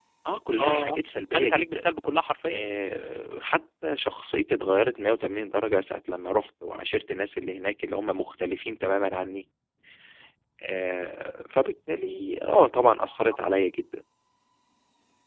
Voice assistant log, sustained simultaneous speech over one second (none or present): none